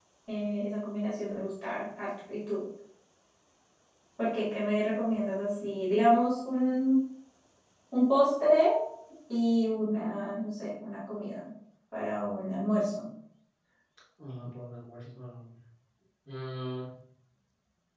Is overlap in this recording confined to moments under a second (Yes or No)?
Yes